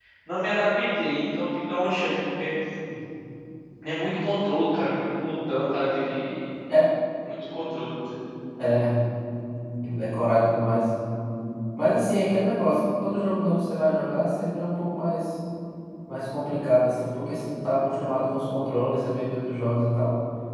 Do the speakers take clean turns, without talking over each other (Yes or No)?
Yes